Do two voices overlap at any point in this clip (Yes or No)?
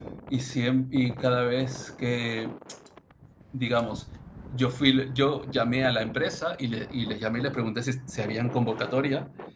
No